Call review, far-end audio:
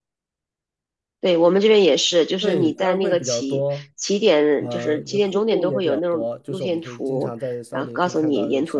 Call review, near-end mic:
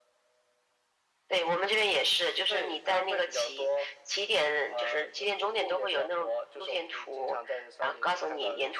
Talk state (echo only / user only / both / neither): echo only